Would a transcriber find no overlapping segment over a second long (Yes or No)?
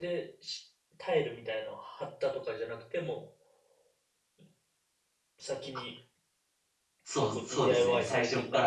No